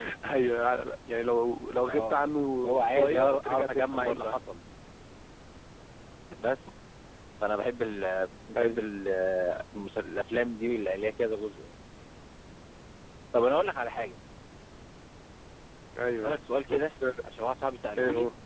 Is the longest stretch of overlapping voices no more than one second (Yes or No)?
No